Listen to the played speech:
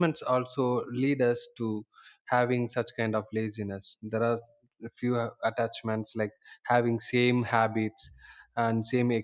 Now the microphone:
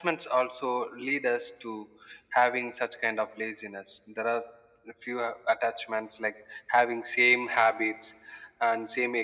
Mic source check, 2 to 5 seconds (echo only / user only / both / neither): echo only